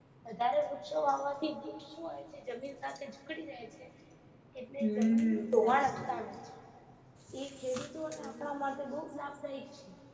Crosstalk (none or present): present